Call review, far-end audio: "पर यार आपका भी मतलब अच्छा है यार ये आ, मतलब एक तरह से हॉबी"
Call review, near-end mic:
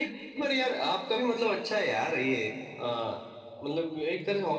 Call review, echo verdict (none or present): present